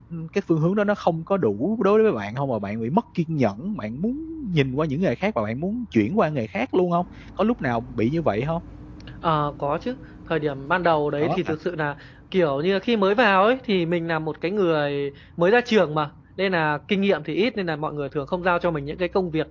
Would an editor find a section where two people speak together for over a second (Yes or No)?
No